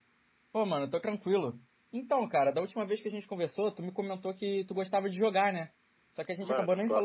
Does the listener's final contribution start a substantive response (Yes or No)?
Yes